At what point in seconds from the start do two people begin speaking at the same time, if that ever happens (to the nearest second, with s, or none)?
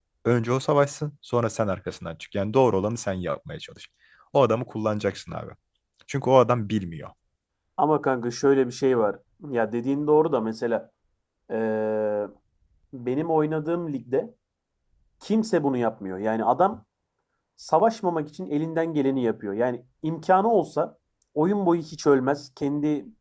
none